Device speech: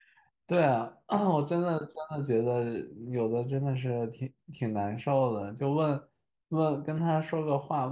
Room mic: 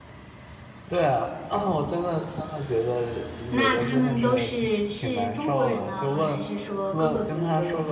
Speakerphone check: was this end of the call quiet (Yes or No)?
No